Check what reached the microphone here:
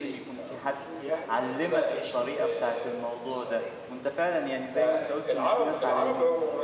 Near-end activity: present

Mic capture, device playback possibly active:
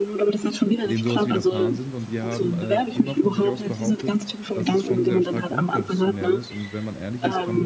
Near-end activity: present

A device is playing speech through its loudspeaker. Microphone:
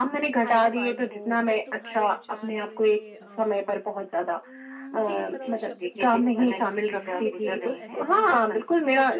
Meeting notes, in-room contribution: present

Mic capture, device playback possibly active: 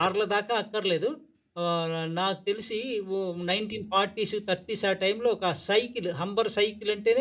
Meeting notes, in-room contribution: present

